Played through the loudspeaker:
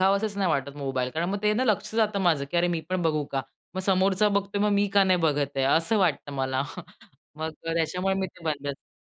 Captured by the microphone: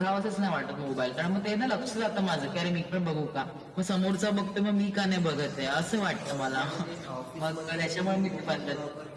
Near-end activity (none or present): present